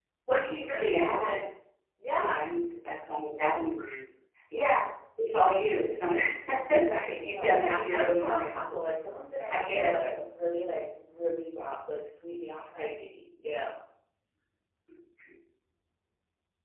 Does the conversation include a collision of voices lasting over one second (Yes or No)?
Yes